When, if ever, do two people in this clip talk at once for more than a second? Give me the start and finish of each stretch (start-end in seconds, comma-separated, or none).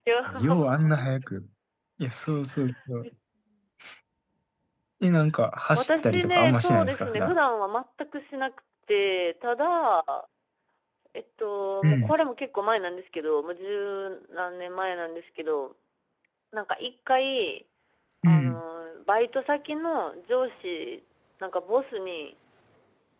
5.8-7.4